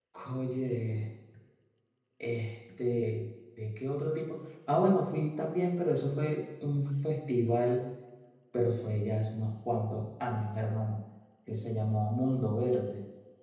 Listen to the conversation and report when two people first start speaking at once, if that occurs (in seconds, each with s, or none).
none